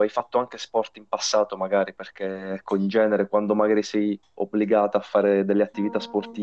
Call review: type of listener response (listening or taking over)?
listening